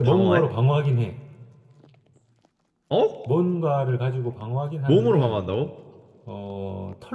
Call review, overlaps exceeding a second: none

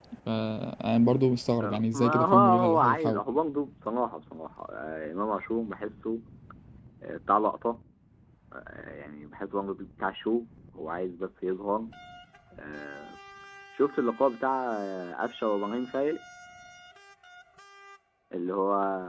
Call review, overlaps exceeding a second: present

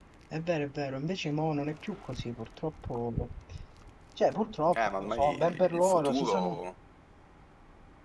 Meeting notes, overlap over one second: present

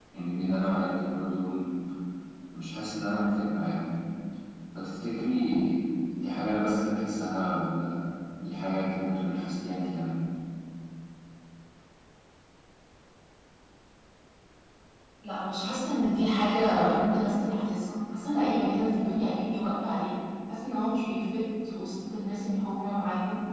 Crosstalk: none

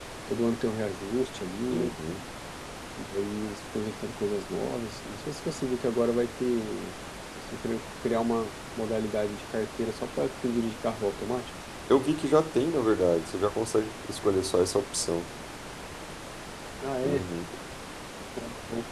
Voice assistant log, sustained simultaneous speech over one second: none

